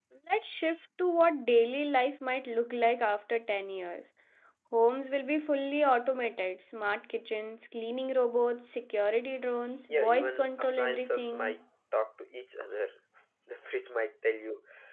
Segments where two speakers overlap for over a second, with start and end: 9.9-11.6

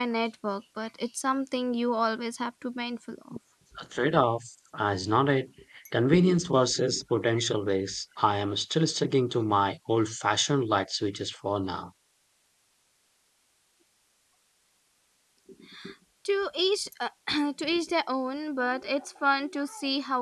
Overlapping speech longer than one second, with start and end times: none

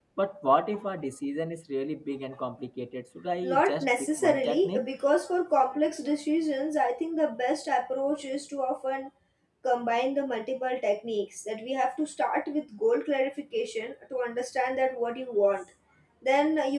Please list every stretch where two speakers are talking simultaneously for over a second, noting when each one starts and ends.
3.4-4.8

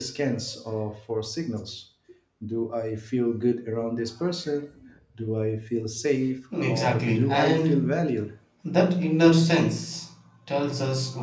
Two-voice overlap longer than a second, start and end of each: 6.7-8.1

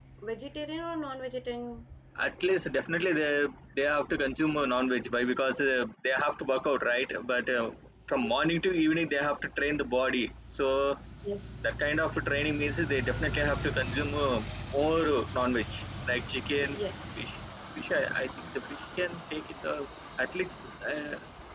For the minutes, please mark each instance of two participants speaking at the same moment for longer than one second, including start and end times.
none

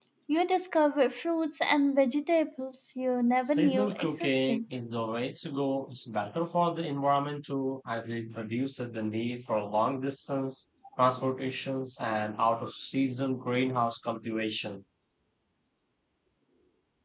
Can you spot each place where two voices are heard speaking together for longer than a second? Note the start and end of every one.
3.4-4.6

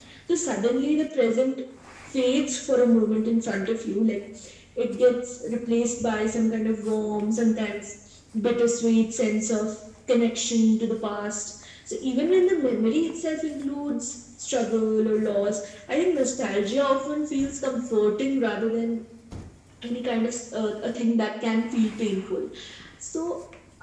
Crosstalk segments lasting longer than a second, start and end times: none

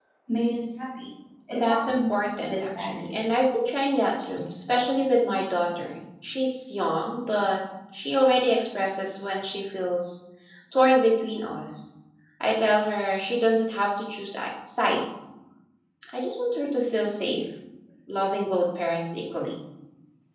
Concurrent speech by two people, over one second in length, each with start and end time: 1.5-2.9

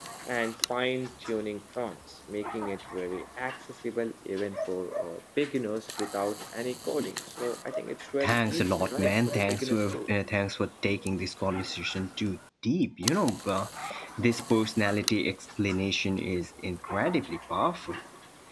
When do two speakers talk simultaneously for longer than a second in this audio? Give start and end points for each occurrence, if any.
8.2-10.0

